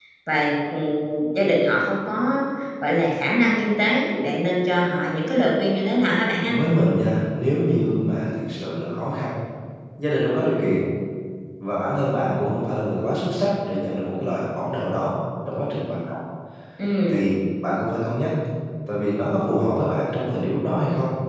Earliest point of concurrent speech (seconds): none

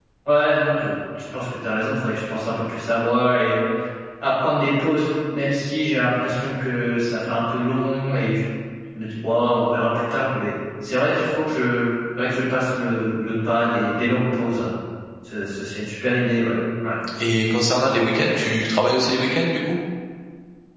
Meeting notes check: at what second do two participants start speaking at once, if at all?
none

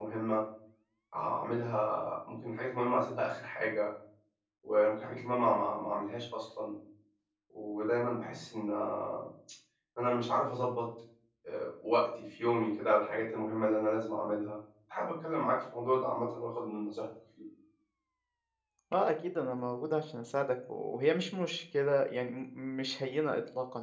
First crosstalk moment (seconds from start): none

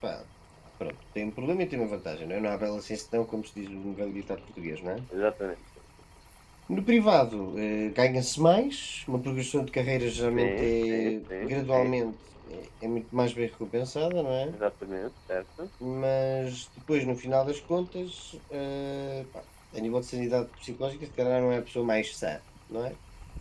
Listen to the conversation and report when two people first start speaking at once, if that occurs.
10.4 s

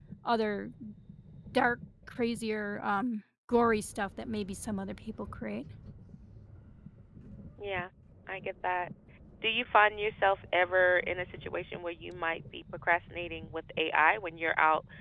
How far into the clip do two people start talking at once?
none

